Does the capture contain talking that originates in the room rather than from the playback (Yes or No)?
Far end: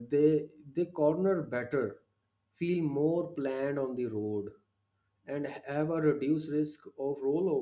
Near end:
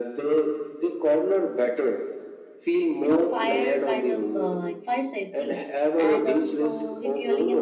Yes